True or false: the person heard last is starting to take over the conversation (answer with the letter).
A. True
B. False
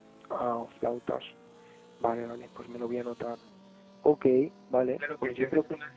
A